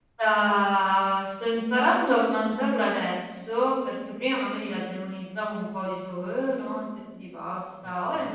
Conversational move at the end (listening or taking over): listening